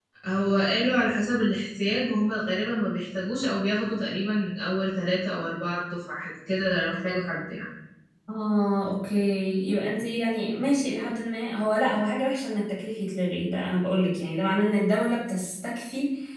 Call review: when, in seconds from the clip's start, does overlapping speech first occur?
none

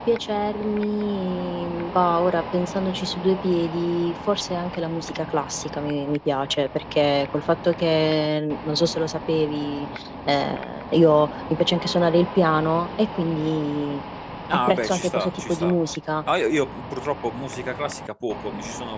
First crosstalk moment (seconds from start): 14.5 s

